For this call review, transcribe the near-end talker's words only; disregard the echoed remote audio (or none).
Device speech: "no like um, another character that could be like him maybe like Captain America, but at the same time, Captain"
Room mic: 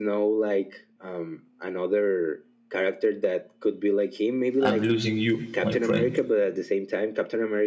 I'm losing you, my friend.